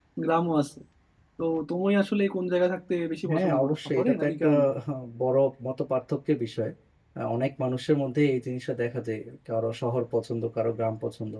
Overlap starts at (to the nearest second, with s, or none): 3 s